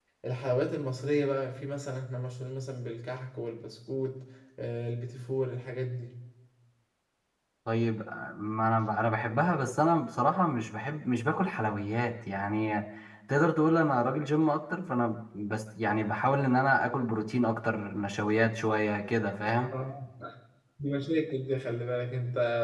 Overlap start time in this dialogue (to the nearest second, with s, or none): none